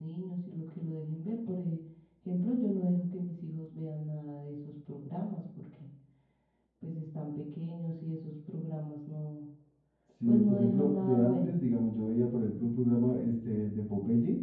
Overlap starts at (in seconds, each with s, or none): 10.2 s